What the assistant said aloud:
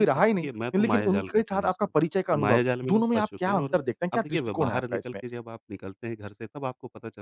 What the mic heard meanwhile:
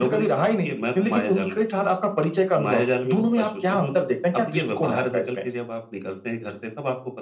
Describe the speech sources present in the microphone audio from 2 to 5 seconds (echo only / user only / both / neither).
echo only